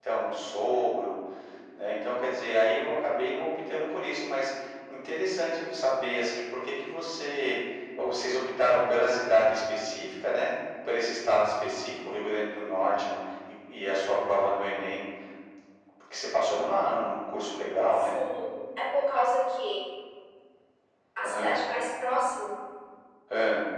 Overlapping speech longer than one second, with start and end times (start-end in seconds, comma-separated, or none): none